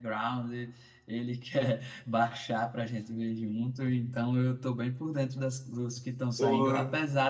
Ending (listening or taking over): listening